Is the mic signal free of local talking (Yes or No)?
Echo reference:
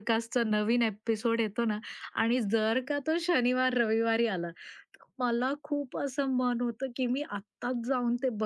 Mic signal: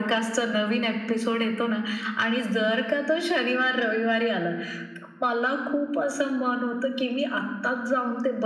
Yes